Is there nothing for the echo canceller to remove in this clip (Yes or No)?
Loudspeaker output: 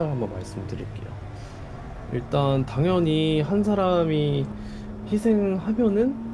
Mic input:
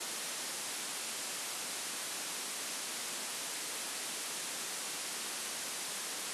Yes